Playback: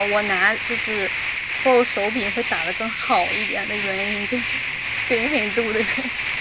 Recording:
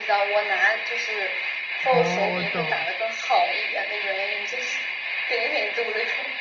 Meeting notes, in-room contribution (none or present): present